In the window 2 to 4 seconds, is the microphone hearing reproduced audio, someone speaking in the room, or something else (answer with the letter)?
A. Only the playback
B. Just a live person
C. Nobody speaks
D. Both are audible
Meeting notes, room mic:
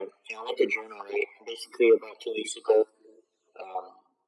A